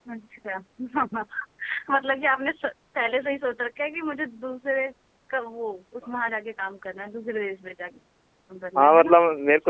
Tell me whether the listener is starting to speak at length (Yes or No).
Yes